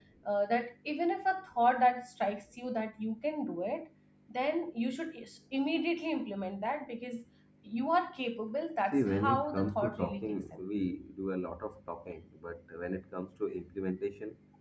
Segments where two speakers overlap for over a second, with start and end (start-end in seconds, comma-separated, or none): 8.9-10.3